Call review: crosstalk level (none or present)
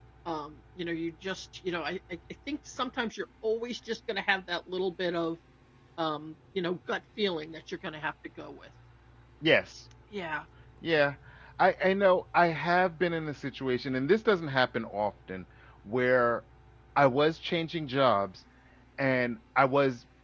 none